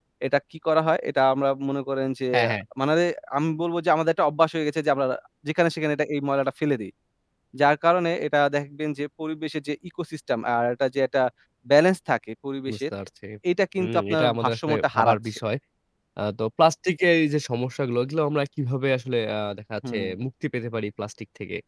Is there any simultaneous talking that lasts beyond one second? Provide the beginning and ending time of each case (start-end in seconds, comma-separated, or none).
13.8-15.2